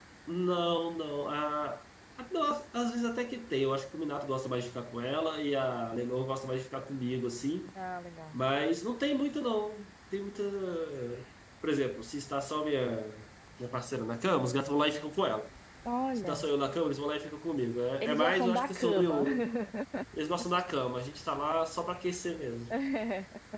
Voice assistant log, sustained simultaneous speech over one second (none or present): present